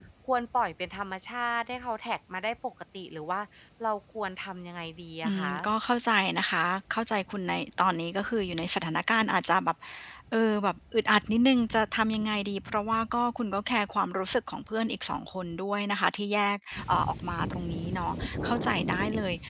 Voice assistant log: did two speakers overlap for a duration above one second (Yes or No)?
No